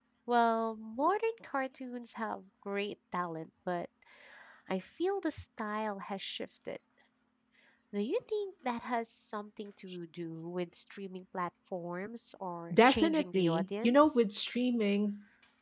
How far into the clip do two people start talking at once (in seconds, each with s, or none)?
12.7 s